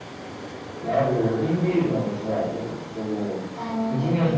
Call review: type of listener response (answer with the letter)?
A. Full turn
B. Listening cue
B